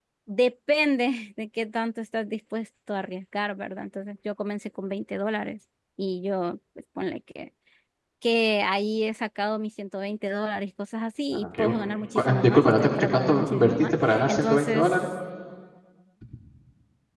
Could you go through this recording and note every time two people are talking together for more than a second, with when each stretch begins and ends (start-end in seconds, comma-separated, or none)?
12.2-15.0